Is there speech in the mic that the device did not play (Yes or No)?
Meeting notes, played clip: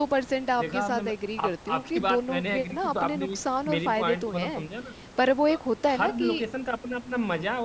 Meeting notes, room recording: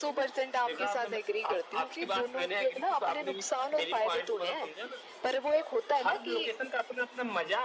No